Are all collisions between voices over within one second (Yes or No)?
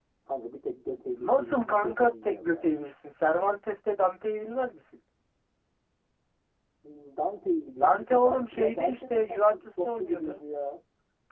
No